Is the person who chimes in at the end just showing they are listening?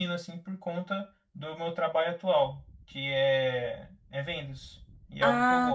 No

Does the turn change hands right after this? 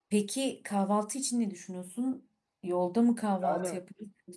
Yes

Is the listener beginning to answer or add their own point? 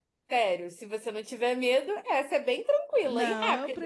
Yes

